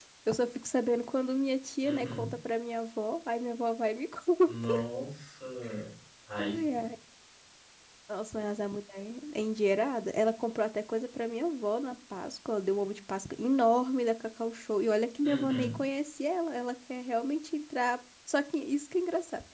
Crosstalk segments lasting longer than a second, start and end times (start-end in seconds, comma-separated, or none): none